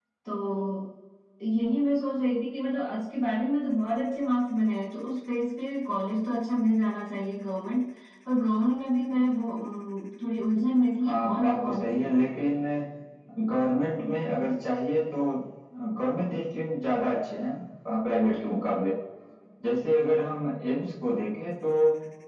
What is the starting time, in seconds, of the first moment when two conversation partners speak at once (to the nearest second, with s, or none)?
11 s